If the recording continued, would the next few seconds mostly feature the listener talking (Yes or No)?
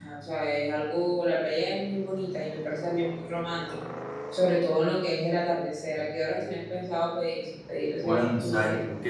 Yes